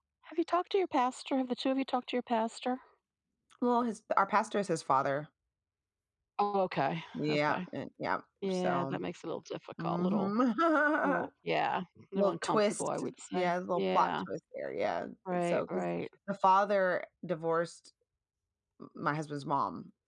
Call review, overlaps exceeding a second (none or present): present